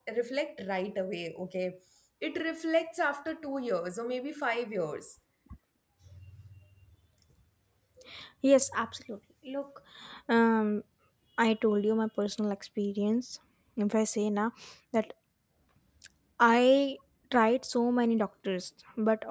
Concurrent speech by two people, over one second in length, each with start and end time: none

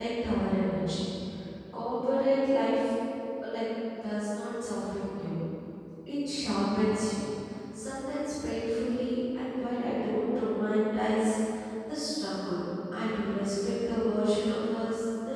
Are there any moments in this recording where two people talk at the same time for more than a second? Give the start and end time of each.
none

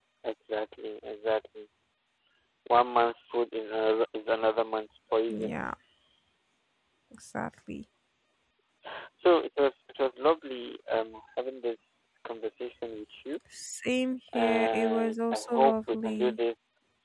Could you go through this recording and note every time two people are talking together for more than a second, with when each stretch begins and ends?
14.3-16.4

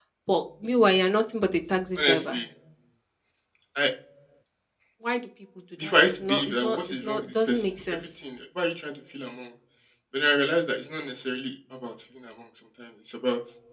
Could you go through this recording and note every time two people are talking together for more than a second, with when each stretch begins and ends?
5.8-8.0

